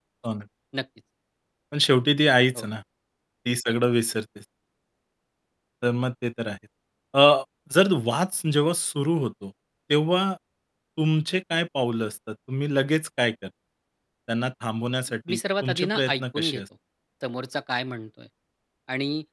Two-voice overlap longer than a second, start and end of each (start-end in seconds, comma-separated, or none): 15.3-16.6